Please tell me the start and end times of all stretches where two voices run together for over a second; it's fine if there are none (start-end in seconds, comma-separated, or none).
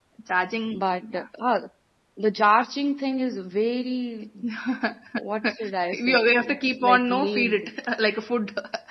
5.9-7.7